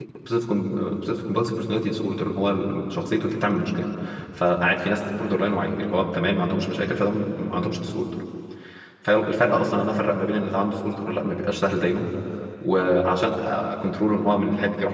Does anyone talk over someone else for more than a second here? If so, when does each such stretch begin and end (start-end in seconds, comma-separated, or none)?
none